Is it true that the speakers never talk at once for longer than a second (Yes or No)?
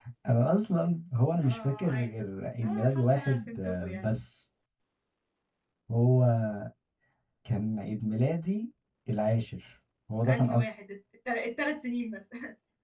No